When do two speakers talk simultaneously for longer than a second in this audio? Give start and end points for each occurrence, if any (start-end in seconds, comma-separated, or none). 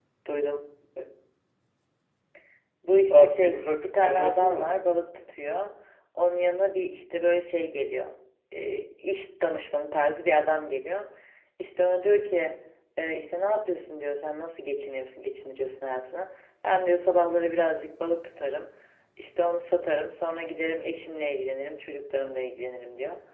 3.1-4.8